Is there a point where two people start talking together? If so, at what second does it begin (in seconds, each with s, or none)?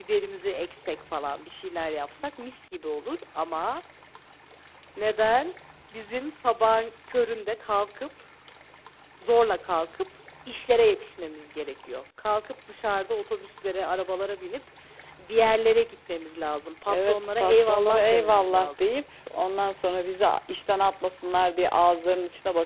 16.9 s